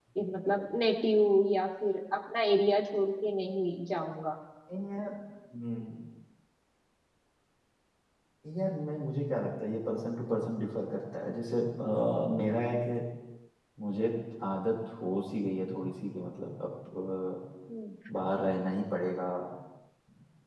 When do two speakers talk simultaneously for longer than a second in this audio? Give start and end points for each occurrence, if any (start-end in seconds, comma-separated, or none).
none